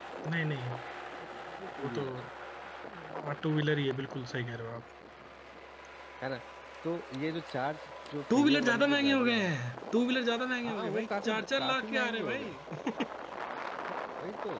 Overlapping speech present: Yes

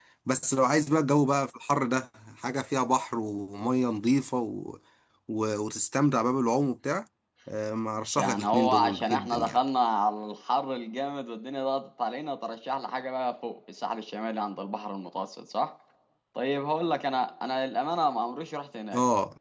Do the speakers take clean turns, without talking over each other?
No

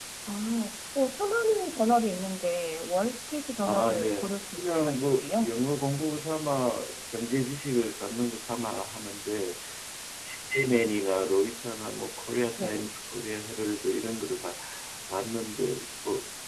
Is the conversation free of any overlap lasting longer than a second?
No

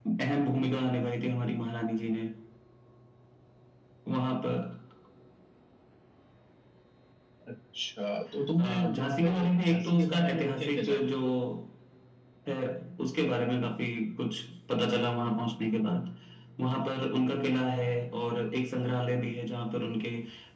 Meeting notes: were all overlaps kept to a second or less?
No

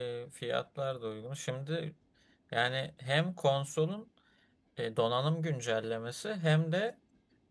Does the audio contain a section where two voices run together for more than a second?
No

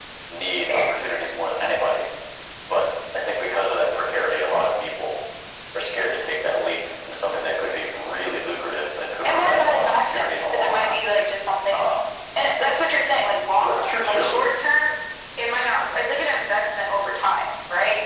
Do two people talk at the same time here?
Yes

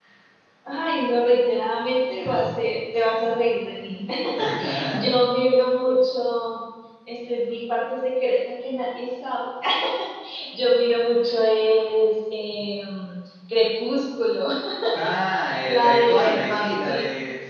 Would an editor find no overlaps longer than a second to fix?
No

